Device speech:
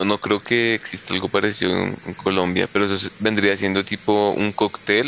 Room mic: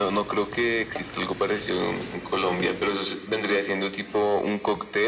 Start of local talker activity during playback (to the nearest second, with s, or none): none